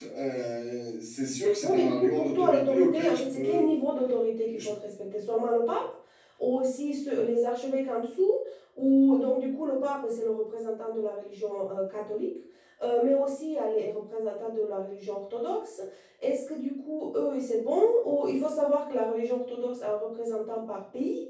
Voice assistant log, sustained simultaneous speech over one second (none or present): present